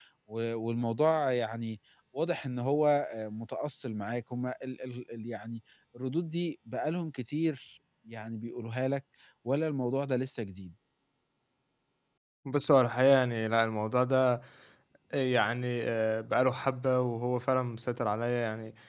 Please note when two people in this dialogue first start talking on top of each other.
none

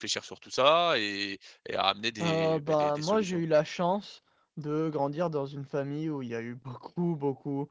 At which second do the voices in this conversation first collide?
2.2 s

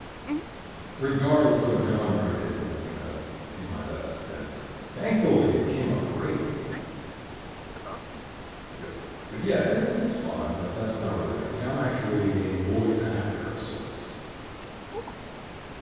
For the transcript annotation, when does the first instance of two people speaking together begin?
none

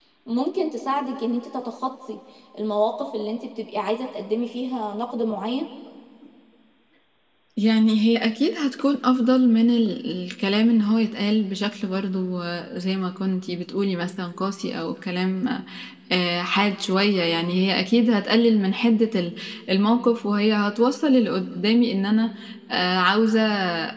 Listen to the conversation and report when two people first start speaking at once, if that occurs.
none

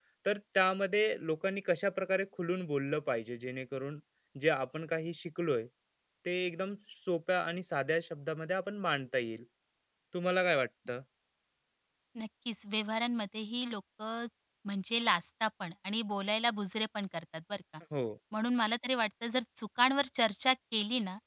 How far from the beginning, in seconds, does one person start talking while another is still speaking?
none

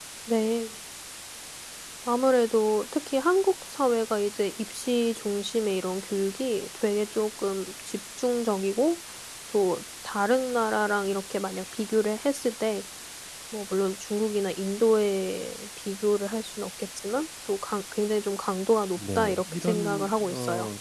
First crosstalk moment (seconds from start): 19.0 s

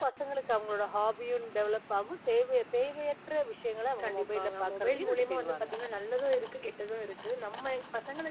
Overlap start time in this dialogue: 4.0 s

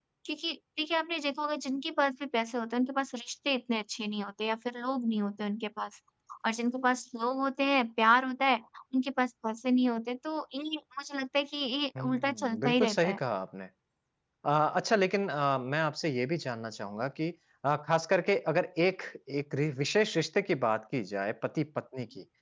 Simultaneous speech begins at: 11.9 s

